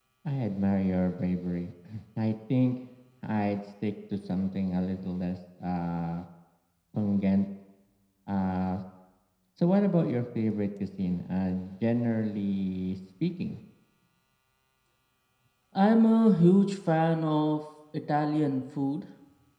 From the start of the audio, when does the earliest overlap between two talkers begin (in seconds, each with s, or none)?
none